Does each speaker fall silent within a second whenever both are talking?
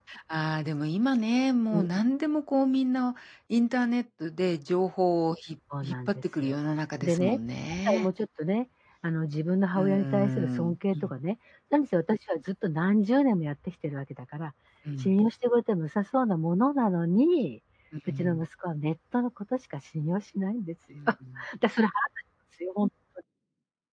No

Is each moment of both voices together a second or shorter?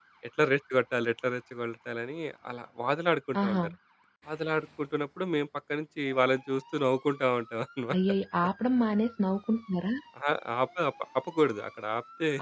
Yes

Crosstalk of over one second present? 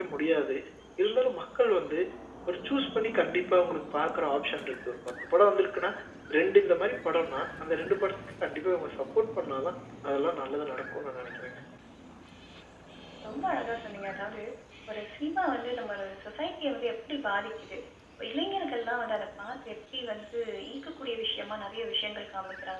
No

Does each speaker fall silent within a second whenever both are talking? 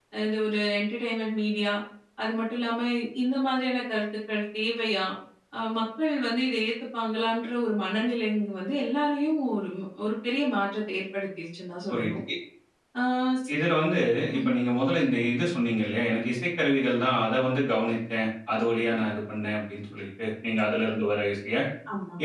Yes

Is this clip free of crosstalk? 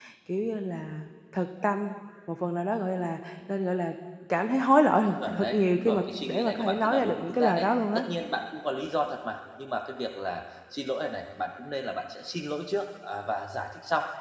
No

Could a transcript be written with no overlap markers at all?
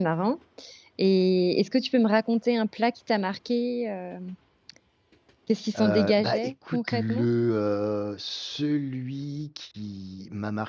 No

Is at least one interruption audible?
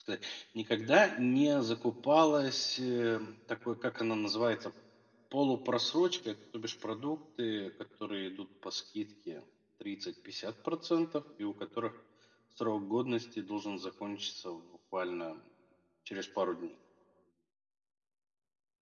No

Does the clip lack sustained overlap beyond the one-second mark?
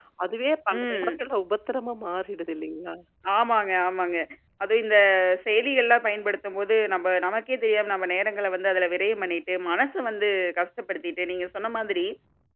Yes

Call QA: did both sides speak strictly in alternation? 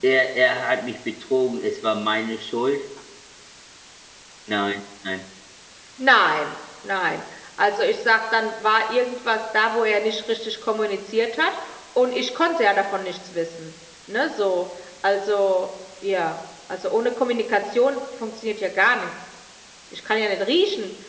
Yes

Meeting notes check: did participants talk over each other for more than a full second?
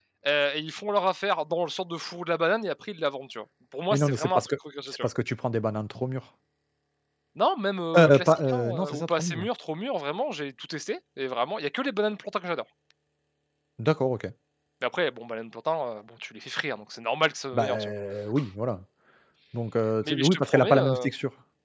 Yes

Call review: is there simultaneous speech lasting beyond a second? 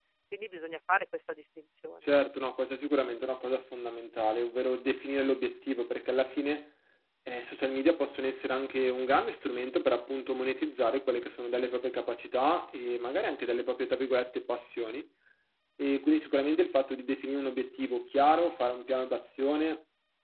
No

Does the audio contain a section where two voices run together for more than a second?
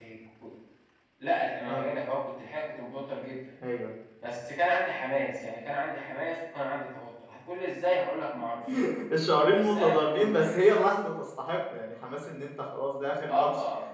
Yes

